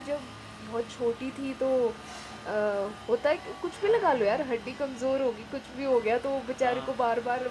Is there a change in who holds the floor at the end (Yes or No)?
No